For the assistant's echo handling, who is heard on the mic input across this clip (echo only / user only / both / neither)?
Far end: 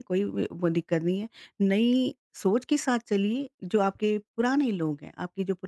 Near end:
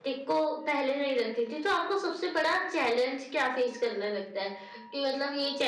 user only